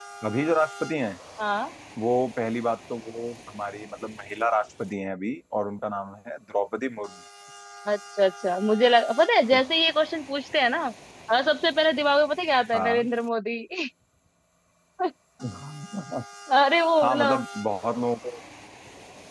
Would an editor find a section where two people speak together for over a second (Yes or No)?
No